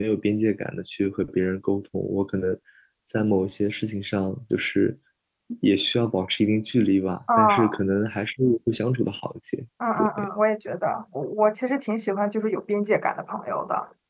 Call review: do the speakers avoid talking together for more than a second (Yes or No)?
Yes